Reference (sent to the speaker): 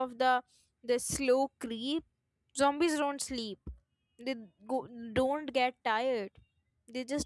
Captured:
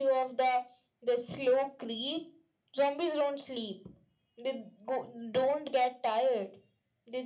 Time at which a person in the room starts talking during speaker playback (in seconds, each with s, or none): none